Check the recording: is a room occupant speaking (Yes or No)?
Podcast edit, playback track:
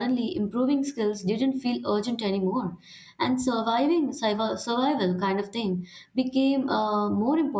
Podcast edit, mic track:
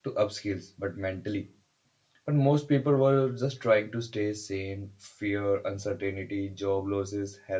Yes